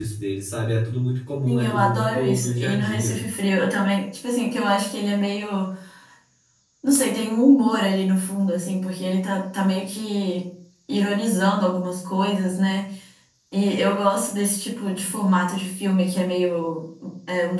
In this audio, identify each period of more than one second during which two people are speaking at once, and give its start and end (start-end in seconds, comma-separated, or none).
1.4-3.2